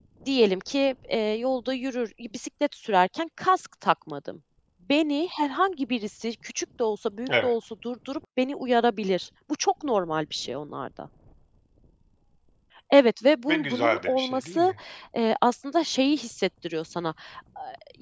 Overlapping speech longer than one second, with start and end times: 13.5-14.7

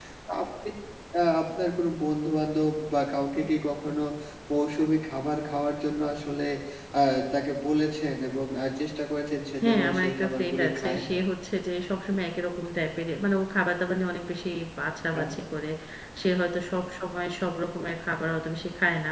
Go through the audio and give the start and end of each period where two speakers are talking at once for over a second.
9.6-11.0

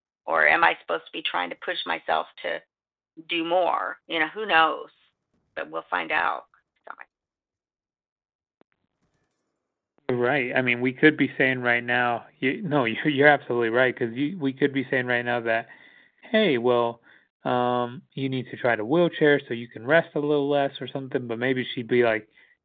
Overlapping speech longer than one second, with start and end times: none

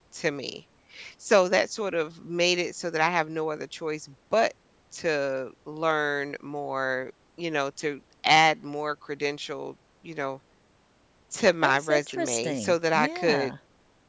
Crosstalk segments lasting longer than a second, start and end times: 11.6-13.5

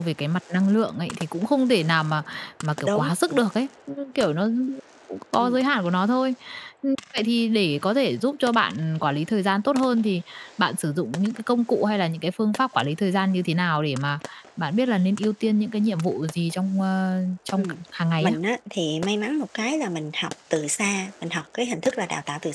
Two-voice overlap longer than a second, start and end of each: none

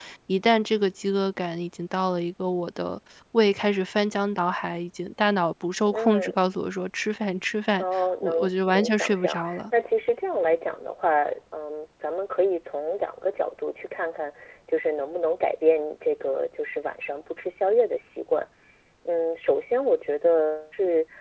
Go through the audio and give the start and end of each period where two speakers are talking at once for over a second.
7.8-9.6

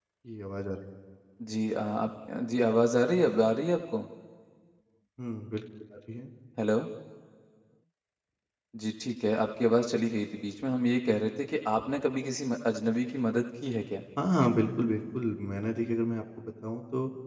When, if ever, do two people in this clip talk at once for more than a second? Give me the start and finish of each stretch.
none

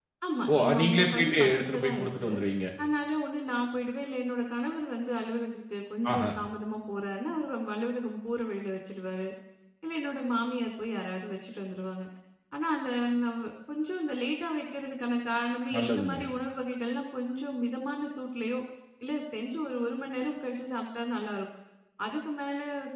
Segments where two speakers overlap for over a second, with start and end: 0.5-2.3

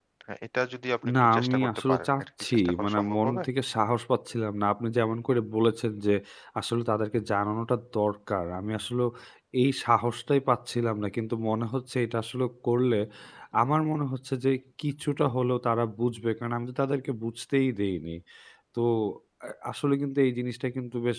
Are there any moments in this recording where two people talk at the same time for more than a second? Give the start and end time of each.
1.2-3.4

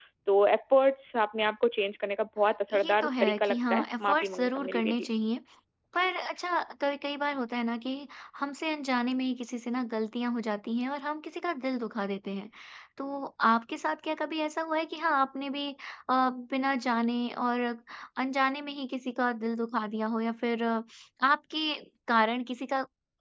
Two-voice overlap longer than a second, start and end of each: 2.7-5.0

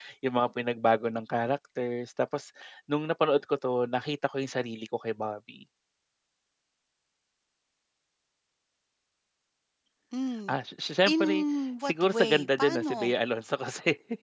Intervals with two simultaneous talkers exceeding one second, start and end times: 11.8-13.1

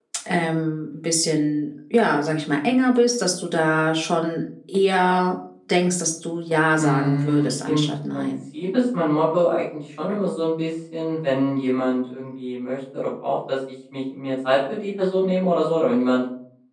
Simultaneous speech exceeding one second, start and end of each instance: 6.8-8.3

